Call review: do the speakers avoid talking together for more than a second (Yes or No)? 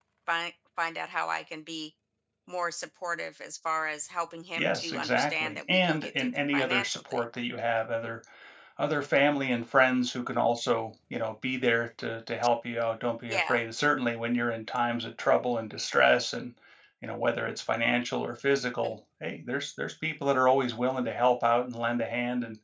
No